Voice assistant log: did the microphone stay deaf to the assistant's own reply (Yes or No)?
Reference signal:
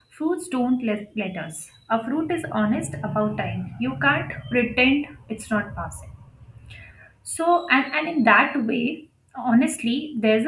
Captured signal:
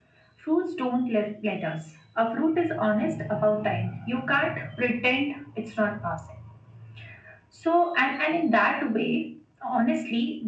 No